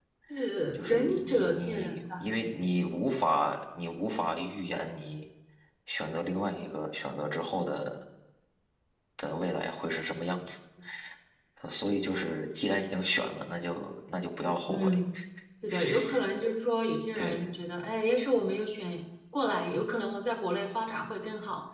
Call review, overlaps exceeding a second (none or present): present